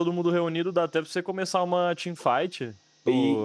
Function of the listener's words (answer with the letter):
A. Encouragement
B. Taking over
B